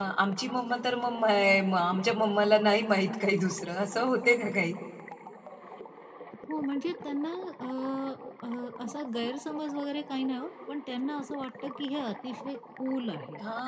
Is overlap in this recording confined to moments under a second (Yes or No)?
Yes